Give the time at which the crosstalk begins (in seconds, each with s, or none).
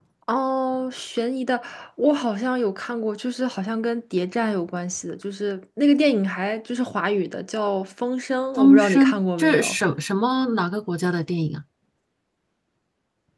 8.6 s